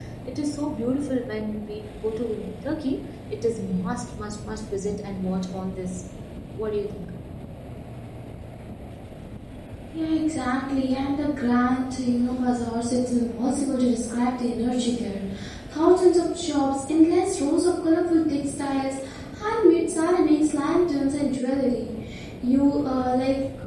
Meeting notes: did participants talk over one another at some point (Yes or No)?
No